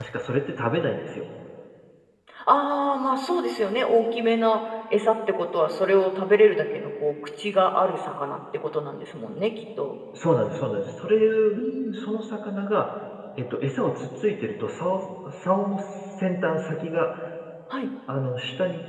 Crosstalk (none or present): none